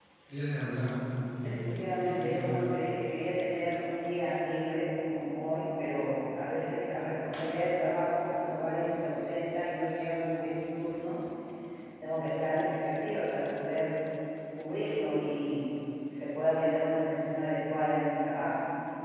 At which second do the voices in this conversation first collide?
1.4 s

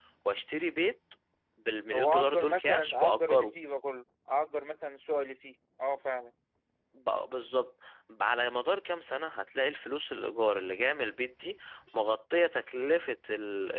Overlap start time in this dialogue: 1.9 s

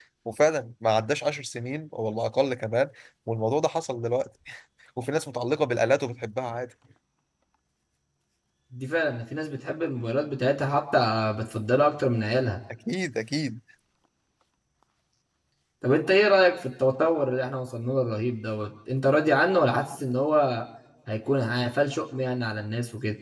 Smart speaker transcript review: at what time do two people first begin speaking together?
none

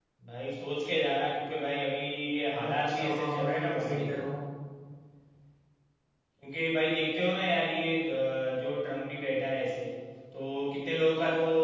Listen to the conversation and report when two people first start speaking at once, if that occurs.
2.6 s

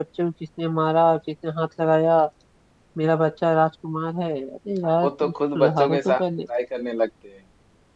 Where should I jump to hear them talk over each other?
5.0 s

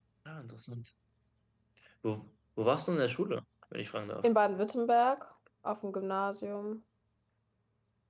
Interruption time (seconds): none

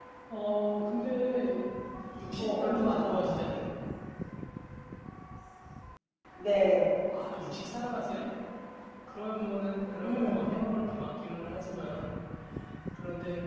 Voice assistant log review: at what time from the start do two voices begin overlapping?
2.3 s

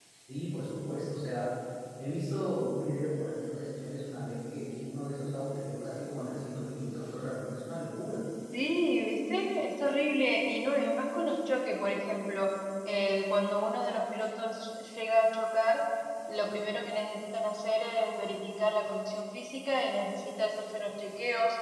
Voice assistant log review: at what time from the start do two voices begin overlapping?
none

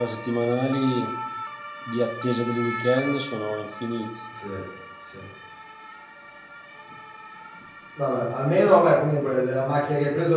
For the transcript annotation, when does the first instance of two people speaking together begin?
none

